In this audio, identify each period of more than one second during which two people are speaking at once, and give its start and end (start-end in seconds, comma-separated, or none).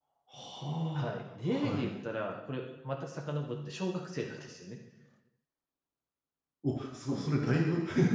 none